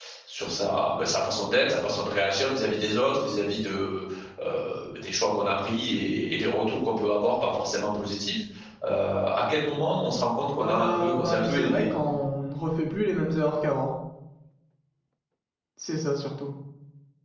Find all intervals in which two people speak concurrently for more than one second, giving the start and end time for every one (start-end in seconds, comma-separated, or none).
10.6-11.8